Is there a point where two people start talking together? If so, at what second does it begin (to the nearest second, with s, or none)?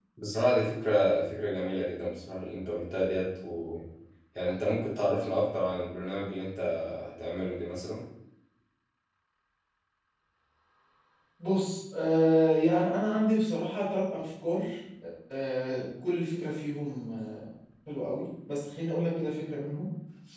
none